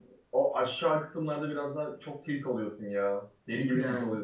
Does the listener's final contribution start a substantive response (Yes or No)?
No